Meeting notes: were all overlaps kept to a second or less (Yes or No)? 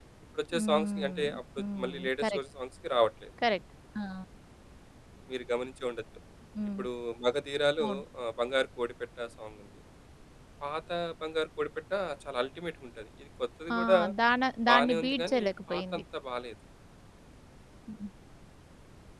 No